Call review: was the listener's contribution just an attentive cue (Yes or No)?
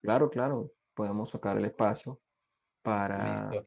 Yes